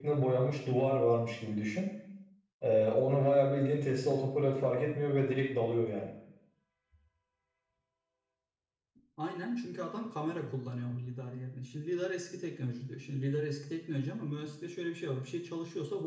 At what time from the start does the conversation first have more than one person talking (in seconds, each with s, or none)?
none